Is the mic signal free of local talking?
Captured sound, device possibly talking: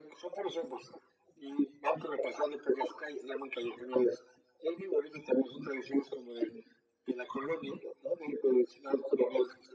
Yes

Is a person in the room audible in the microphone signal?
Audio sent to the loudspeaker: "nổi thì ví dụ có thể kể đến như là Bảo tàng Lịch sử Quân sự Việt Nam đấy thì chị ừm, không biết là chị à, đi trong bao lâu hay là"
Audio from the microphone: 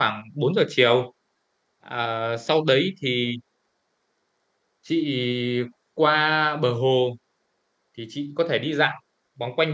Yes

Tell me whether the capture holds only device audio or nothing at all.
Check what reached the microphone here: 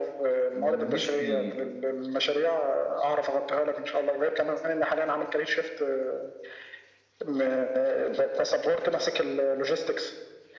No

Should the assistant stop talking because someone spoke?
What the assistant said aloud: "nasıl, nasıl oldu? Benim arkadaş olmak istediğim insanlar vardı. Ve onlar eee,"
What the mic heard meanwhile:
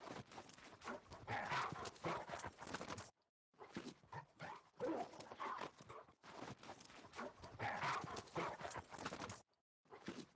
No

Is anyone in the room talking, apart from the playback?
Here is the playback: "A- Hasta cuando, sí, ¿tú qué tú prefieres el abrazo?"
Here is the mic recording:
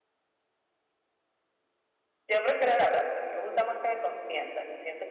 Yes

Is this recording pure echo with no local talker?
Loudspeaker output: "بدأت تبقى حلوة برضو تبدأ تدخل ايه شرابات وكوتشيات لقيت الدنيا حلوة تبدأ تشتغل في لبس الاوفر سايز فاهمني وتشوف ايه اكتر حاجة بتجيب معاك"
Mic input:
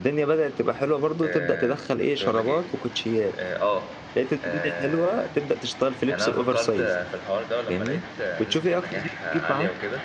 No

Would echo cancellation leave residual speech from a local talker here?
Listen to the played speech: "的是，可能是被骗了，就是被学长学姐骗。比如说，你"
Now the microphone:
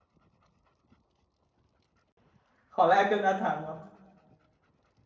Yes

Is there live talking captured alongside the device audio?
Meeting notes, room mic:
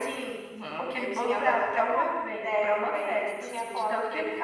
No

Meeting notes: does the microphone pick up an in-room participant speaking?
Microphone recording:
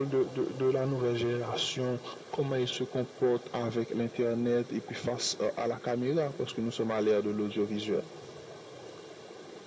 No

